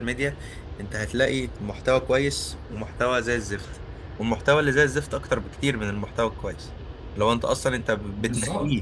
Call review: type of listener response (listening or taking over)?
listening